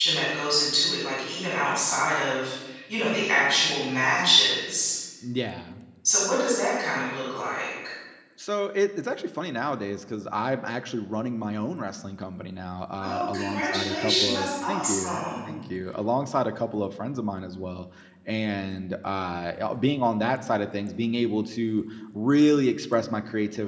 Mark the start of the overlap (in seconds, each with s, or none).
13.0 s